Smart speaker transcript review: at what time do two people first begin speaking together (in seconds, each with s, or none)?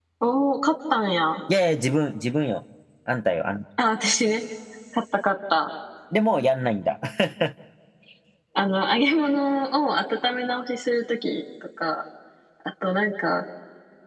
none